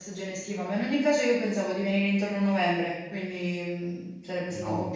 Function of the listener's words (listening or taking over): listening